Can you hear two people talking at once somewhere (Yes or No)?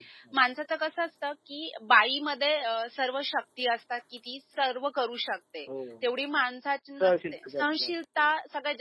Yes